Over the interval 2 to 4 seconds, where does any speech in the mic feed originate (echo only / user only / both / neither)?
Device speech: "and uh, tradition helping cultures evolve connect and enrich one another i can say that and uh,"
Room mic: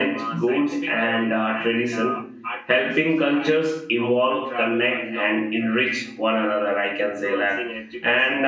both